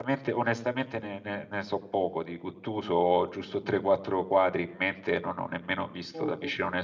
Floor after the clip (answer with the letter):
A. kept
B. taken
A